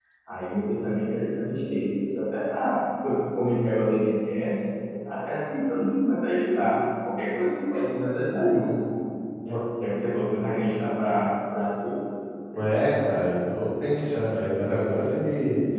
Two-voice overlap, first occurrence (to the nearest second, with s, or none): none